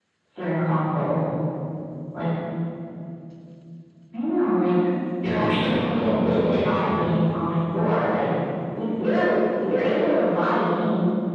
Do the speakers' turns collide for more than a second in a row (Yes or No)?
Yes